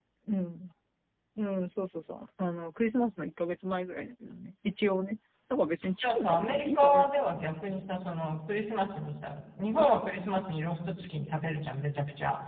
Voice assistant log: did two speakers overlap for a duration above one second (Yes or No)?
Yes